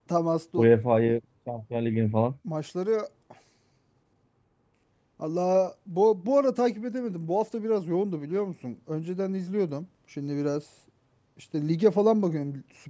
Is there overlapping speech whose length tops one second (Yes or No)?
No